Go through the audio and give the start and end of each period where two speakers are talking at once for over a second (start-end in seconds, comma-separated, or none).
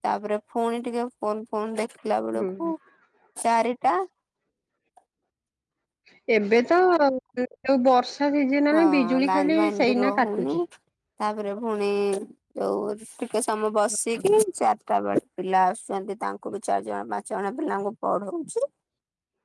8.7-10.4